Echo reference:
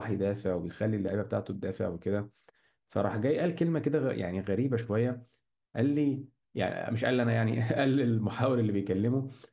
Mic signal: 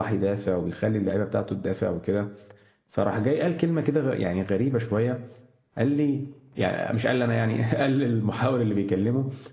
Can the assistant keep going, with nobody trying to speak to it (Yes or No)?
Yes